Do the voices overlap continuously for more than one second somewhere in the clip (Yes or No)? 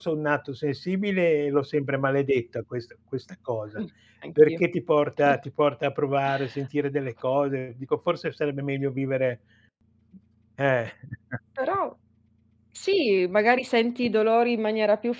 No